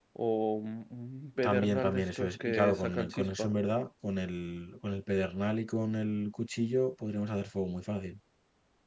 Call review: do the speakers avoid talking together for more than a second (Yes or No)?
No